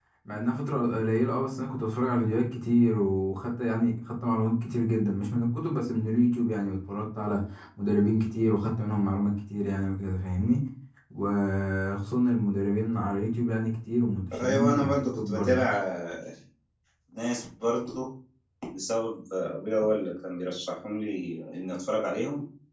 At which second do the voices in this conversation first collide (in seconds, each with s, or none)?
14.3 s